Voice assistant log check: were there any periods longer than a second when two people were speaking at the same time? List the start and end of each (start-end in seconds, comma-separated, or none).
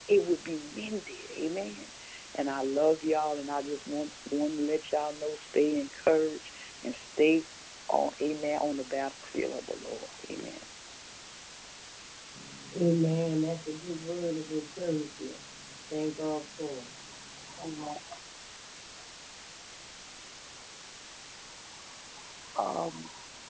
none